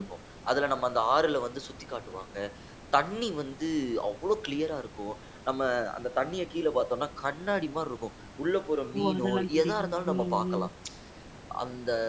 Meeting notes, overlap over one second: present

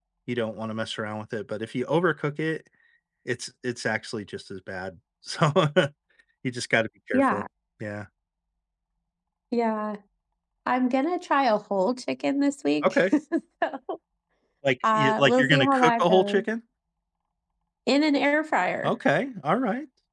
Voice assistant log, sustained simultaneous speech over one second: present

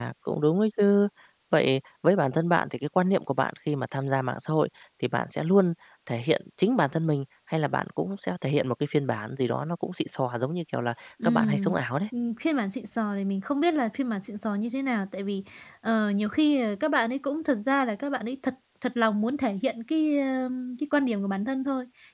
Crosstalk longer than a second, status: none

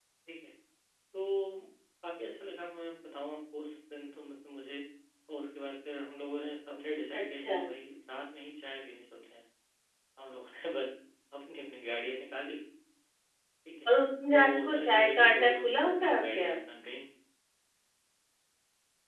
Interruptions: present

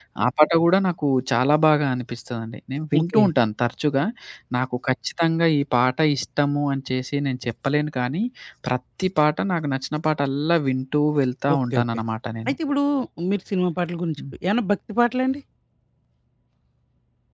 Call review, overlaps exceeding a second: none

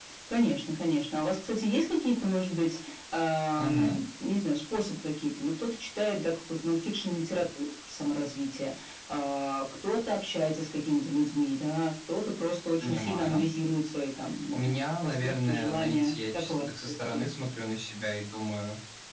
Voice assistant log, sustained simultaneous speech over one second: present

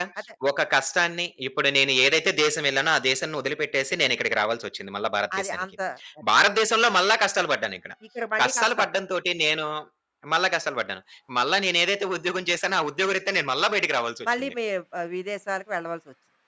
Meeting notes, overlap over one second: none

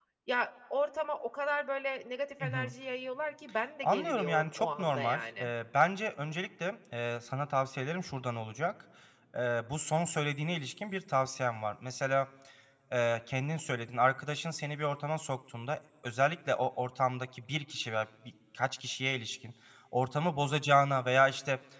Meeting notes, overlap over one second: present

